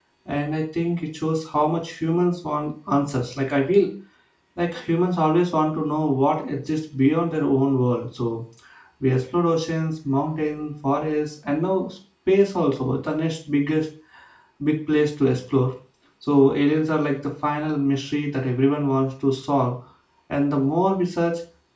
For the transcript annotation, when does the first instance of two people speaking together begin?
none

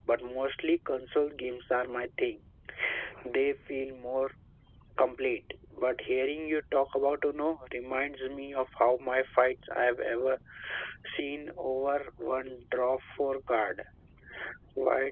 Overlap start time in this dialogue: none

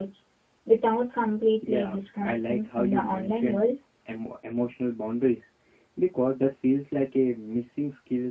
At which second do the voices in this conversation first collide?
1.6 s

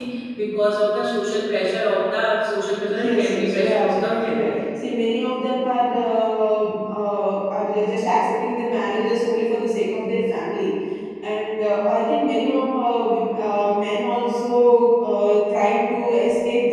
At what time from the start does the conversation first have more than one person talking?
2.9 s

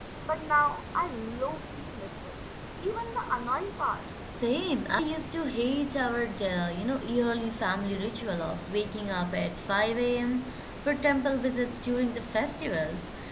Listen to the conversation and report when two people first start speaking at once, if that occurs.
none

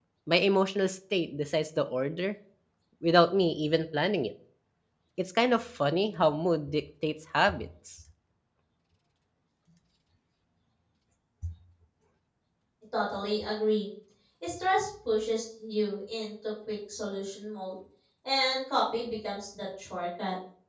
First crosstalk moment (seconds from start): none

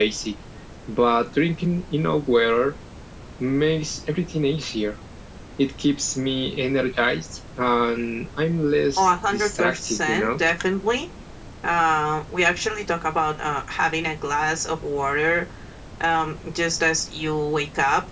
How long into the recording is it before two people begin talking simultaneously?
9.0 s

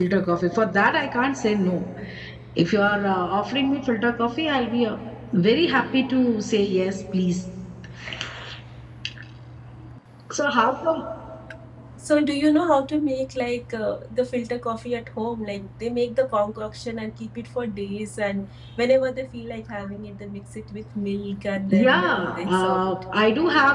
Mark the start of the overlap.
21.7 s

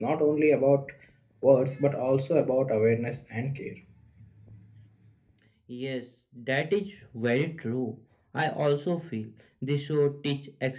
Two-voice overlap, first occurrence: none

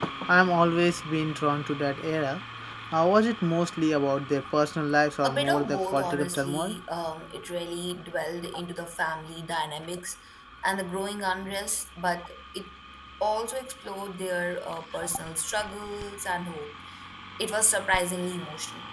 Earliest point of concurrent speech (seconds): 5.2 s

